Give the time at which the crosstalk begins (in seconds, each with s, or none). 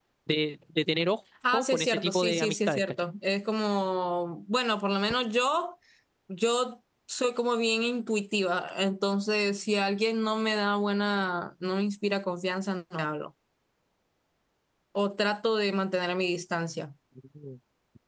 1.4 s